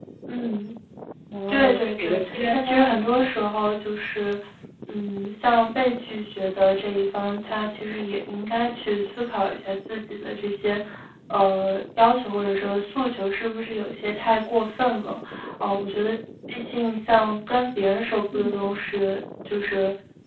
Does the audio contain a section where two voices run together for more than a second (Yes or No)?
Yes